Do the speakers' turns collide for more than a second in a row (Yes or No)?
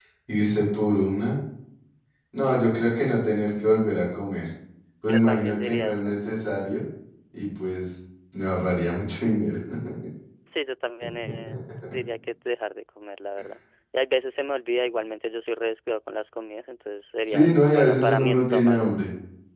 Yes